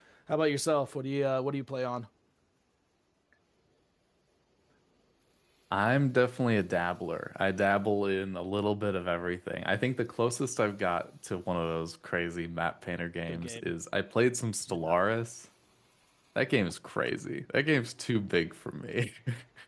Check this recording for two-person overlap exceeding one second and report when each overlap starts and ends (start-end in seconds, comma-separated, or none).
none